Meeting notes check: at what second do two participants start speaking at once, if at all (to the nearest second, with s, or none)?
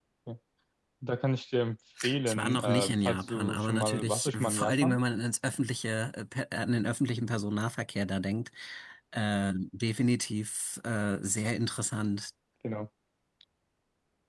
2 s